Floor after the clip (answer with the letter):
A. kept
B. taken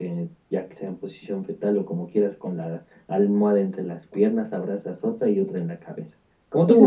B